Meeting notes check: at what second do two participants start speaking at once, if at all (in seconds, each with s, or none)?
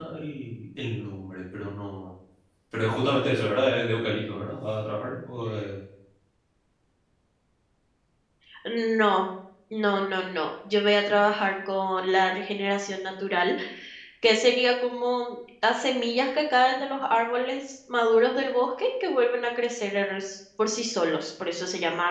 none